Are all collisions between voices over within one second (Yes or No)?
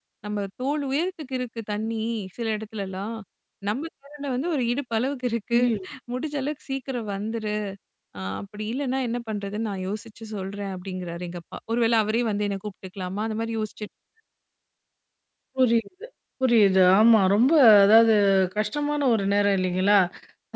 Yes